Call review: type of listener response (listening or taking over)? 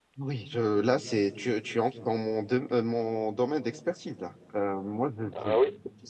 listening